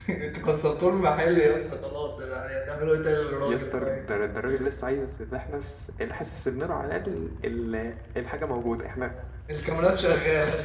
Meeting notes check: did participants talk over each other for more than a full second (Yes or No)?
No